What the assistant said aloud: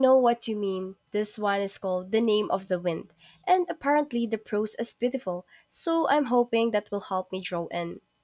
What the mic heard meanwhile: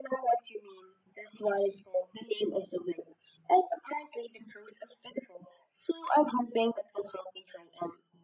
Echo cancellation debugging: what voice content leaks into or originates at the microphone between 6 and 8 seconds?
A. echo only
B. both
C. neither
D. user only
A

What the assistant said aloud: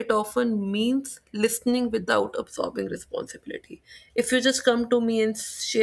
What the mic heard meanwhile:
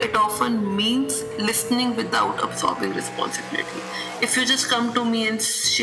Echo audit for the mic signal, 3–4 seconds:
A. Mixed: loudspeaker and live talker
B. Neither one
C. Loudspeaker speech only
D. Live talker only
C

